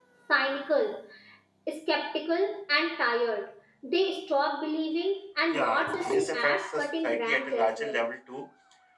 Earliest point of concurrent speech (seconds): 5.5 s

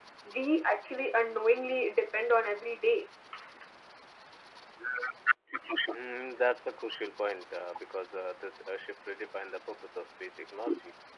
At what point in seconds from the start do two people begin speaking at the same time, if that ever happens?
none

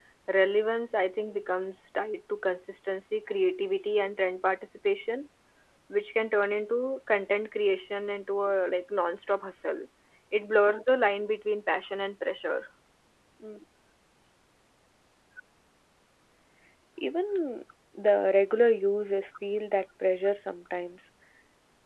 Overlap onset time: none

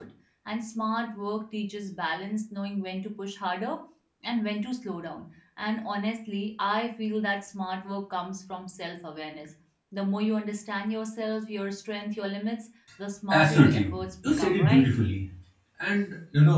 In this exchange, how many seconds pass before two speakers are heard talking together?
13.3 s

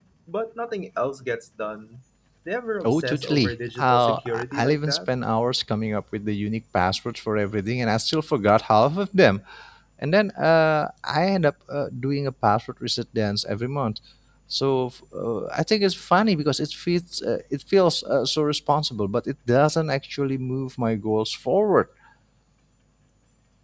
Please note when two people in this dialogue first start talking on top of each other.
2.9 s

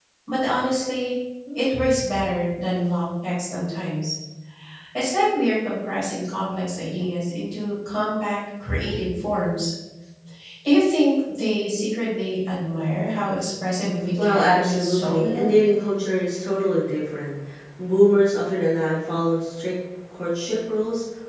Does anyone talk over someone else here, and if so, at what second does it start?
14.2 s

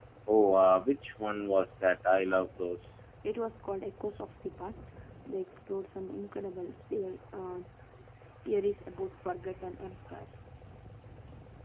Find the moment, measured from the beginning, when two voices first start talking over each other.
none

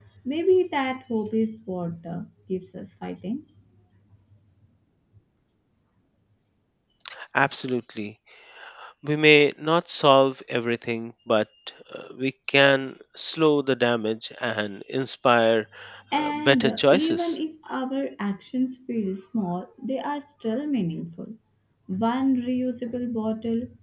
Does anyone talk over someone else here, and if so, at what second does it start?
16.1 s

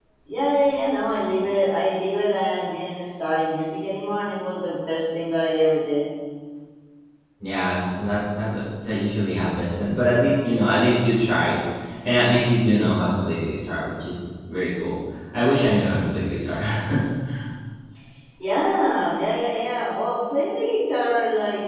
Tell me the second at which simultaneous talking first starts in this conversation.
none

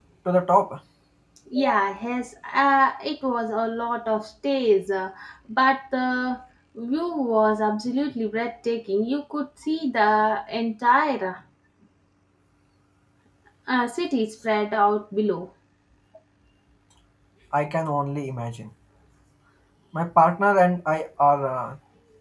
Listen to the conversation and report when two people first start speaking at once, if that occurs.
none

